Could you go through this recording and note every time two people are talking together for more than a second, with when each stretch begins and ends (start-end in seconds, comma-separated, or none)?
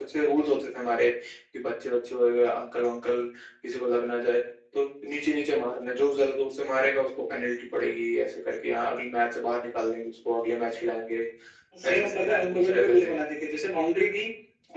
11.9-13.1